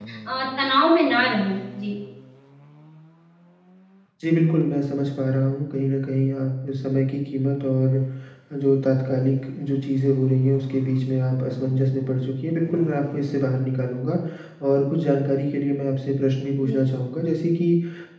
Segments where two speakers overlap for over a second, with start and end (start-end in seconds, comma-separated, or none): none